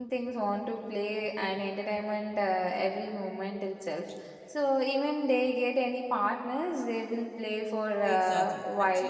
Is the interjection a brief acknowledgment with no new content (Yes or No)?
No